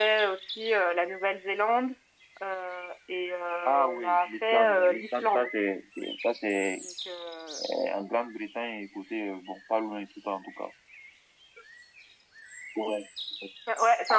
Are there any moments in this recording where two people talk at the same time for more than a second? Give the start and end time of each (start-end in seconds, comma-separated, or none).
3.6-5.5